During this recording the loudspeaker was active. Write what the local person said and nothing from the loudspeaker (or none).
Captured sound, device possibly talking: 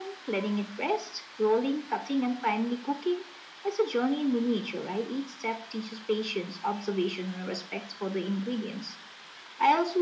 none